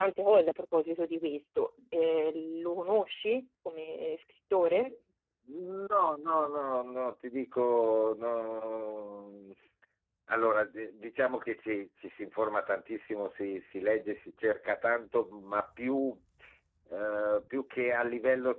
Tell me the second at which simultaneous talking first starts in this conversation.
none

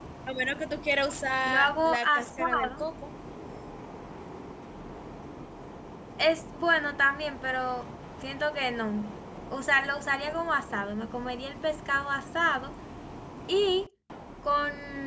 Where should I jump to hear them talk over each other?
1 s

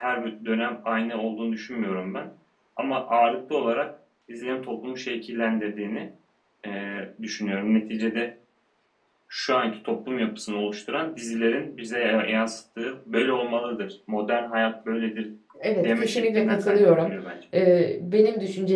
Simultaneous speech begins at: 16 s

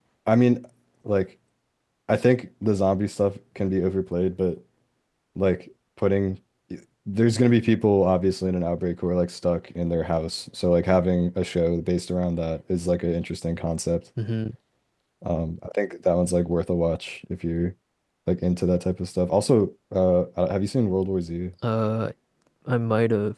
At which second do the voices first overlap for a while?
none

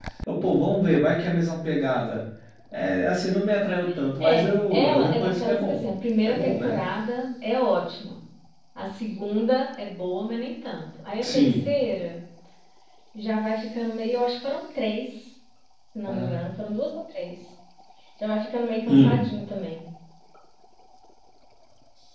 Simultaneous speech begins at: 4 s

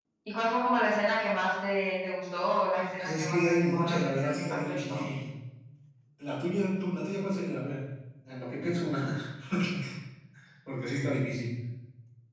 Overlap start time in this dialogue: 3 s

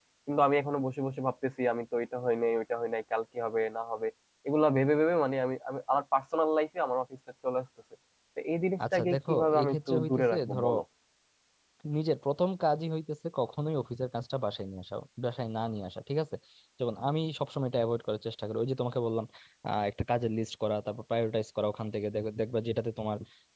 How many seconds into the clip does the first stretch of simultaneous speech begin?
9 s

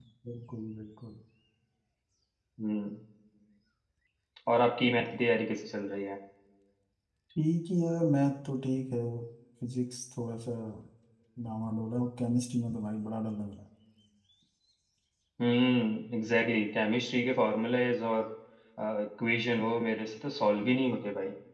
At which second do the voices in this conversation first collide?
none

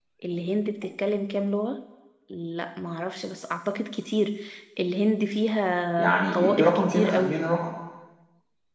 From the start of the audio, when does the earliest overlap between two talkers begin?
6 s

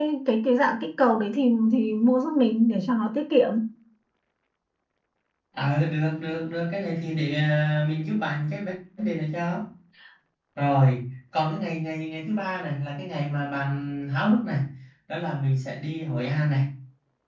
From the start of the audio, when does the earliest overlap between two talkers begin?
none

